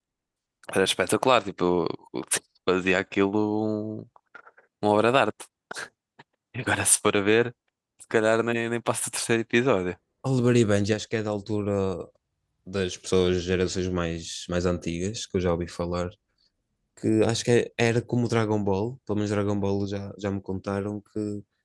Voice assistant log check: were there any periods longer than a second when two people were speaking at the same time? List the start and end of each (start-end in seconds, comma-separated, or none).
none